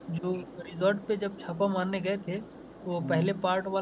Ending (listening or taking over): listening